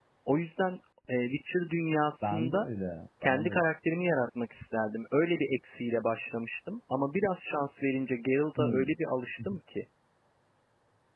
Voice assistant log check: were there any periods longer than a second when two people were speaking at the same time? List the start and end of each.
none

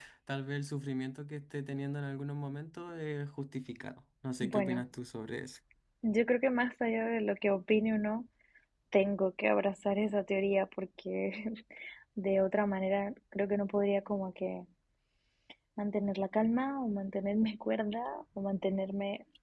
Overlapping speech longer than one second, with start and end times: none

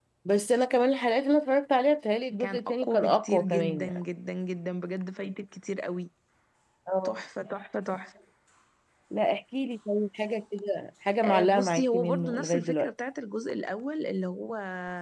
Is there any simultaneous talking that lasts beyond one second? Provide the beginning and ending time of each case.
2.4-4.0, 11.2-12.9

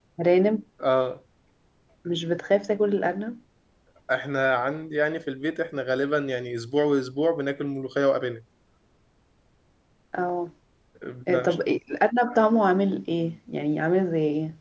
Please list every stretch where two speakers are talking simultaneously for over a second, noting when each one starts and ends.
none

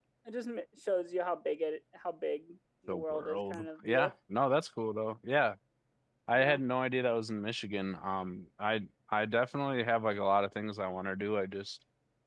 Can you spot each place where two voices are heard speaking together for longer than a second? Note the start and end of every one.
2.9-4.1

